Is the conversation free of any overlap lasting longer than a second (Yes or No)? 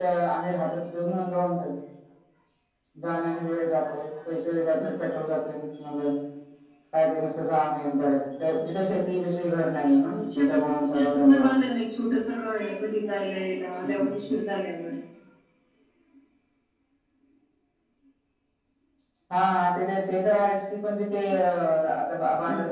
No